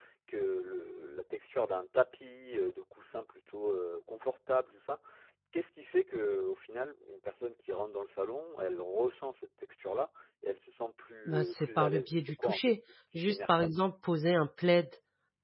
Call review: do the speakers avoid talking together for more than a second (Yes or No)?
No